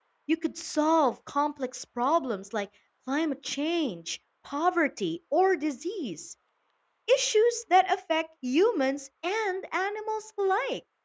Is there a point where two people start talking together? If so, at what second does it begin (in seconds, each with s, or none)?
none